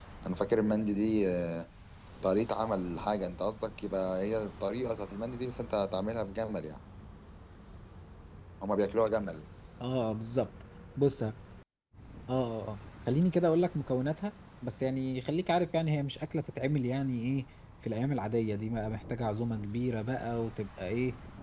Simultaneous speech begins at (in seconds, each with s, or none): none